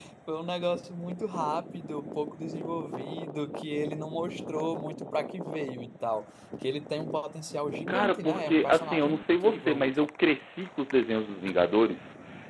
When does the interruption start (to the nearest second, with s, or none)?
8 s